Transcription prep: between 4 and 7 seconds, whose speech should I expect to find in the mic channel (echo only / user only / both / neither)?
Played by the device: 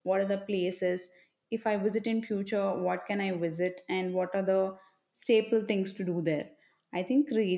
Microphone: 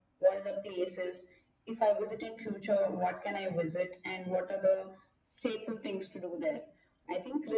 echo only